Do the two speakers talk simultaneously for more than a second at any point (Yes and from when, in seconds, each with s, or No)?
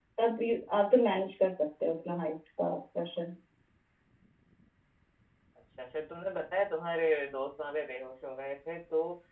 No